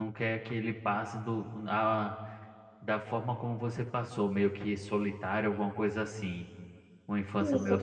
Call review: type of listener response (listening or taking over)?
taking over